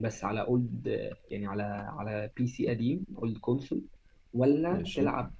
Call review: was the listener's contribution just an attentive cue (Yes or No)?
Yes